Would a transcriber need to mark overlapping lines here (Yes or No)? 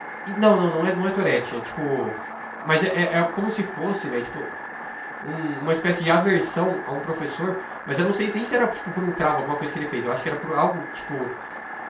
No